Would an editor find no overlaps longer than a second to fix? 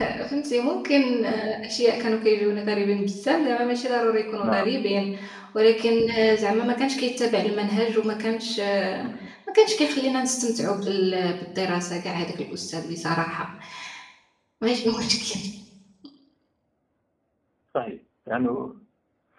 Yes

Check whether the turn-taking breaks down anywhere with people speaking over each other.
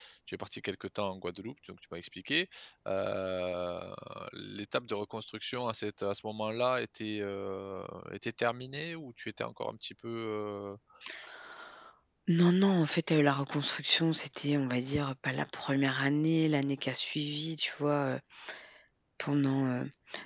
No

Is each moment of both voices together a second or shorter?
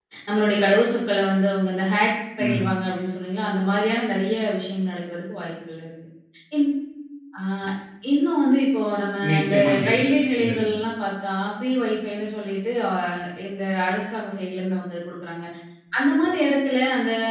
No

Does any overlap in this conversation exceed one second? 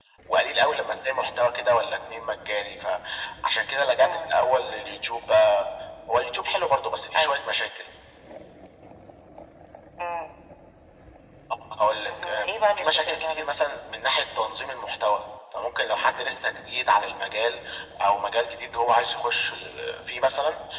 Yes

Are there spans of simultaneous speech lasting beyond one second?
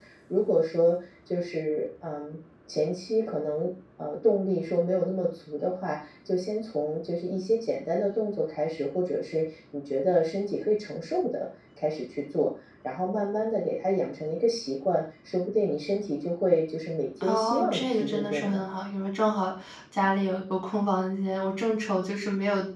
Yes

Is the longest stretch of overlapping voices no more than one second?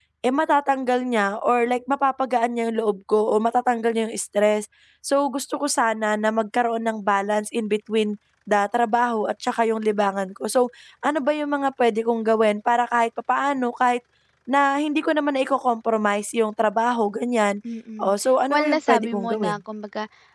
No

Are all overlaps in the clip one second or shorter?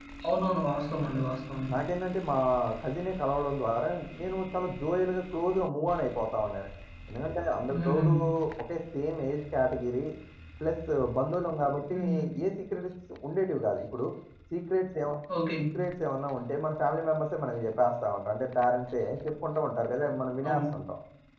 Yes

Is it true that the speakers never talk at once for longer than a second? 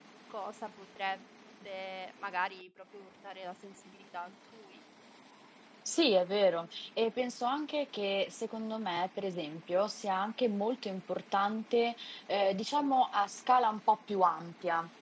Yes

